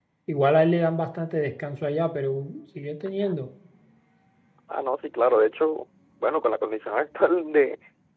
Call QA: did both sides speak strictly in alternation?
Yes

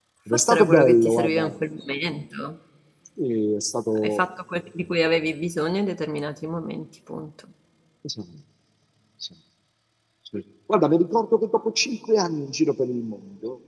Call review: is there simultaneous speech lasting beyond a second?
Yes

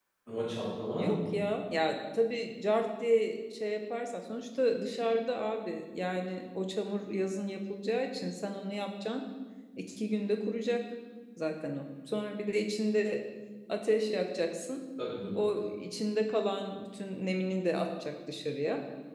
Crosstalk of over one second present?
No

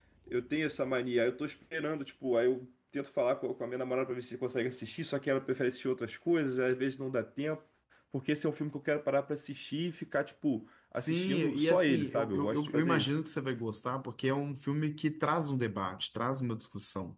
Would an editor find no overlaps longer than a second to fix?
No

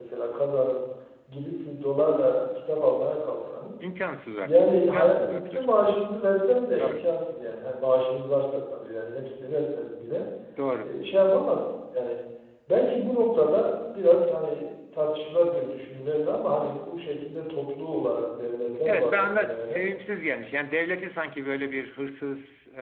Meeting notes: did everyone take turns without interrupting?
No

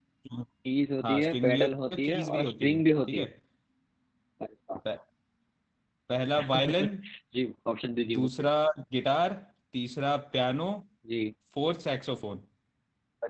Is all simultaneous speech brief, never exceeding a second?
No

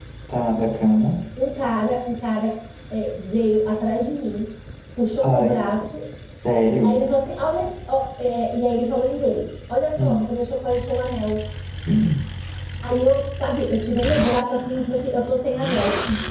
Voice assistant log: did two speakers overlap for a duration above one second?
No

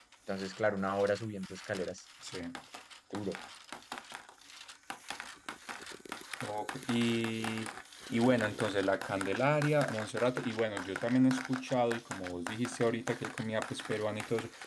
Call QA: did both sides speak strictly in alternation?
Yes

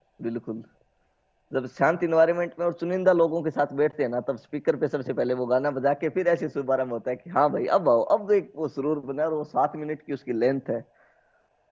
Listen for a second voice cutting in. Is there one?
No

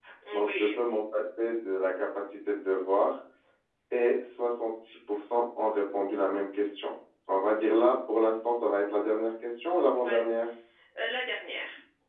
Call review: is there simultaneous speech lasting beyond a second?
No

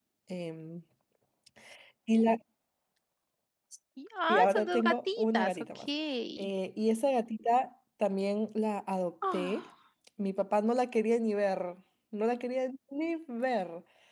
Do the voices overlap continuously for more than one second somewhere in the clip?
Yes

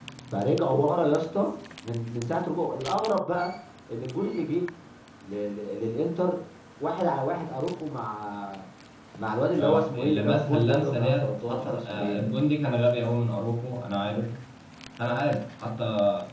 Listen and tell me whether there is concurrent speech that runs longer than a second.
Yes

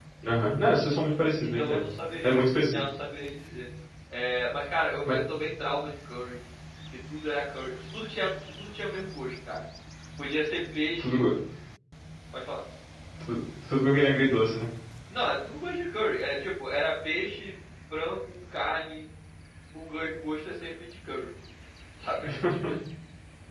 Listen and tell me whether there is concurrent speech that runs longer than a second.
No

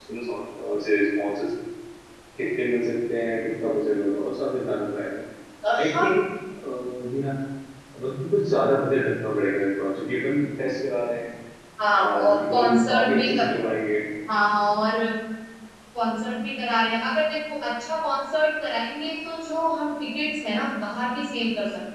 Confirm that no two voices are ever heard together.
No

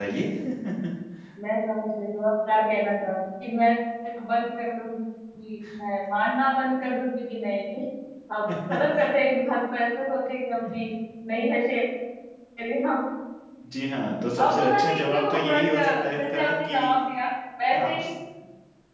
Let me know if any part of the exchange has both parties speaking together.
Yes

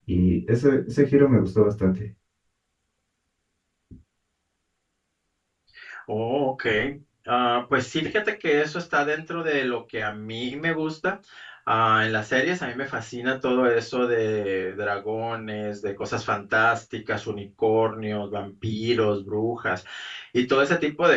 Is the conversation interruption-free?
Yes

